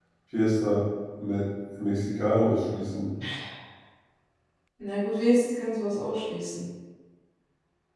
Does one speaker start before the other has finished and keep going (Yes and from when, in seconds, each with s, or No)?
No